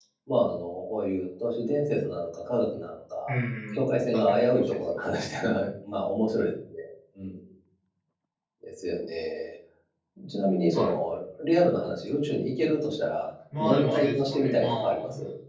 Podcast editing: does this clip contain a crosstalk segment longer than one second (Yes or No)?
Yes